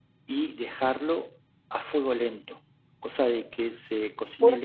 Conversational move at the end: taking over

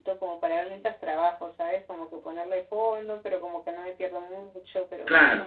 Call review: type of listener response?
listening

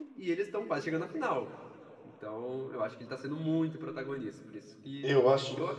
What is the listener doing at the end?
listening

